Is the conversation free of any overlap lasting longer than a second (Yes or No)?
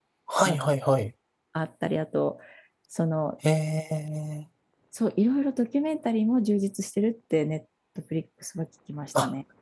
Yes